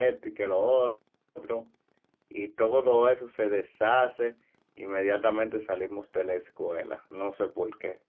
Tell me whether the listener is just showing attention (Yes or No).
No